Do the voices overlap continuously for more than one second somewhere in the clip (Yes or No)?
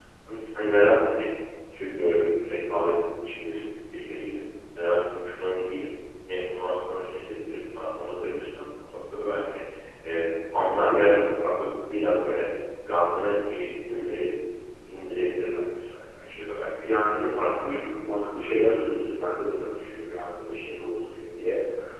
Yes